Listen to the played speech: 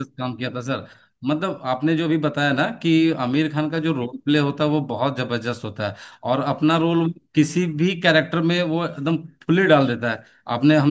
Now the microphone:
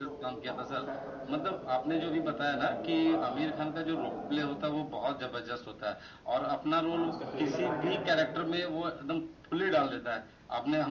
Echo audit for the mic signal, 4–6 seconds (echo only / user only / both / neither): both